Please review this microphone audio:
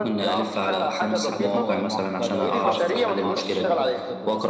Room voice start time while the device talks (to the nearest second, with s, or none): 1 s